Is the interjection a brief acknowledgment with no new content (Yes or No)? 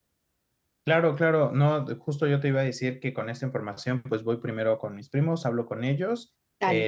Yes